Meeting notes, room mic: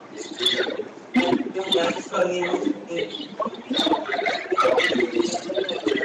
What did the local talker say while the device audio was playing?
We are still unable to think.

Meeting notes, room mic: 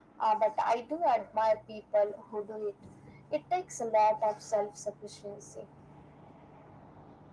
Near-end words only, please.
none

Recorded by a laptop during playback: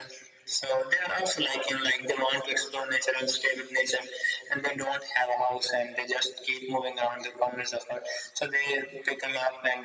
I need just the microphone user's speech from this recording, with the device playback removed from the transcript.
none

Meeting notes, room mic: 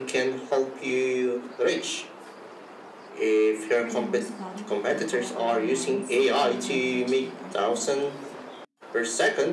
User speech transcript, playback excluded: where the most valuable people are the ones who can teach AI the best?

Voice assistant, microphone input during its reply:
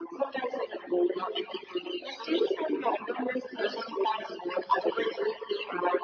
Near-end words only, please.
none

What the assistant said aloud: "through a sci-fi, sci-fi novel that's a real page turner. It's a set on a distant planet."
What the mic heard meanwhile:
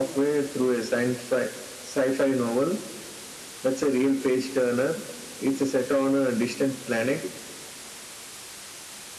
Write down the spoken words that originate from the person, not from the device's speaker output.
none

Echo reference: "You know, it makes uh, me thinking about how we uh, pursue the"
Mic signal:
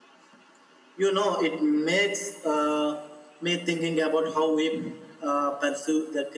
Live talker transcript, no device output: none

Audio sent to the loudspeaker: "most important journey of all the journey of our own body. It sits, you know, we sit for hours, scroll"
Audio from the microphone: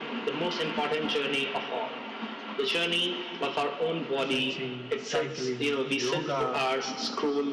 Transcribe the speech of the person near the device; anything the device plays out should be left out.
stretching, cycling, yoga,

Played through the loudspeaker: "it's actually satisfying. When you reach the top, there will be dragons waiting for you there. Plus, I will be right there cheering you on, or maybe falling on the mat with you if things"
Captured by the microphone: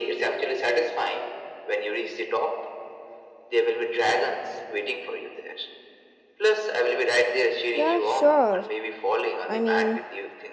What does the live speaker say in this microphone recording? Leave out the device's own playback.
Yeah, sure. I mean,

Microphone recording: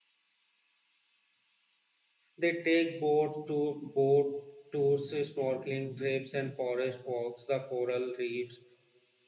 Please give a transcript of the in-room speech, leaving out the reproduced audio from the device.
They take boat to boat tours, snorkeling trips, and forest walks. The coral reefs

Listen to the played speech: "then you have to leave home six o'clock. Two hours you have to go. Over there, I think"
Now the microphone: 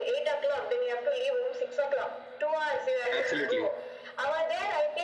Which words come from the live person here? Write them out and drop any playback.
Absolutely.

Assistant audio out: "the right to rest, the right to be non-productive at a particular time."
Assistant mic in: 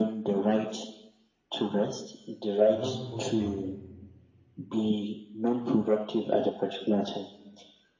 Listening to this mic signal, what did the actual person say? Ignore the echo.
are not posting,

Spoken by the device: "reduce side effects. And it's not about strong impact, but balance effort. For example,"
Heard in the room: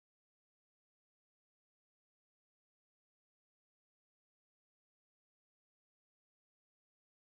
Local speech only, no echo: none

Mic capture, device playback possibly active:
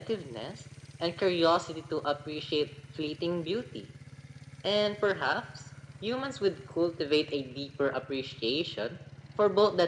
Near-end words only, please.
none

